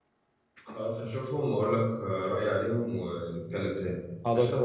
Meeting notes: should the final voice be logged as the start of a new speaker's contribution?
Yes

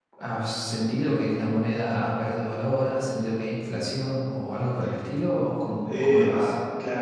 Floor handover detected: Yes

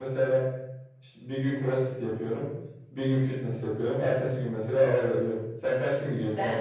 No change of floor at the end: No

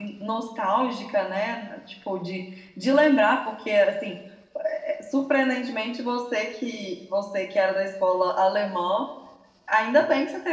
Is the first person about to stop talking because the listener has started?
No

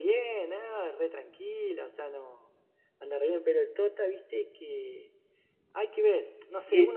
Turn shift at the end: Yes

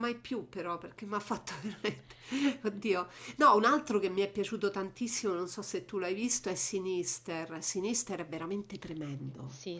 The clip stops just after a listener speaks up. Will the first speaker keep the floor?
No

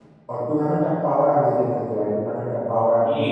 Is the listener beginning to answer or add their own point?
Yes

